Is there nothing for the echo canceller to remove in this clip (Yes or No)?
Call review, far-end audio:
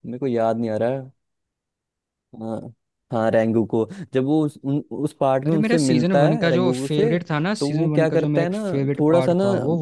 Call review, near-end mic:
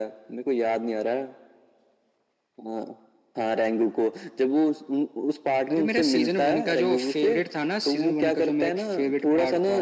No